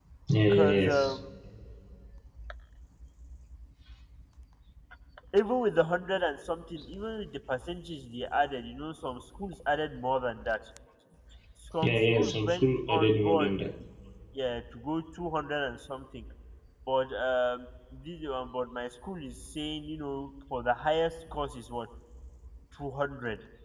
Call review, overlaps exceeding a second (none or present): present